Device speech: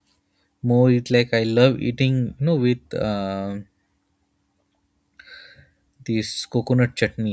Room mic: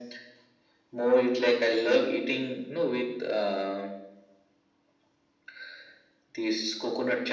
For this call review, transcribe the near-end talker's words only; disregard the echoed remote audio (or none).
none